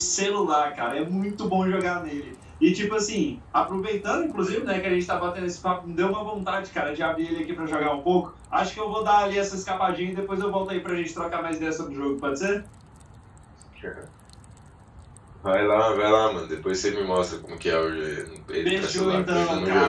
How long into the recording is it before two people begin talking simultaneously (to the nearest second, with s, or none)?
19 s